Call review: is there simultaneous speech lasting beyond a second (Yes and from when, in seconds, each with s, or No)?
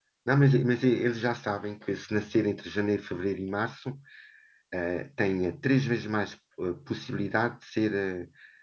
No